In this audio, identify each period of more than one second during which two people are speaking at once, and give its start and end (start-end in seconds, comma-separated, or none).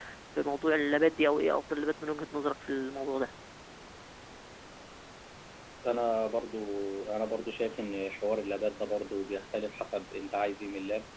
none